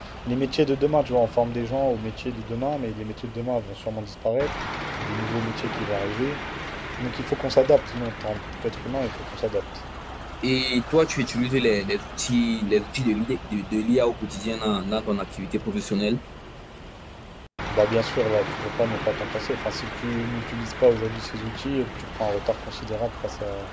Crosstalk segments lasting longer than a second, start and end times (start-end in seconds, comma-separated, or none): none